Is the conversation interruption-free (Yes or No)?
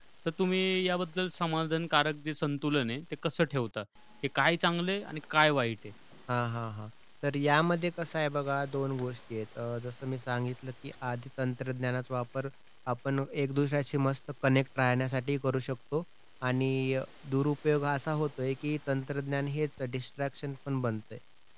Yes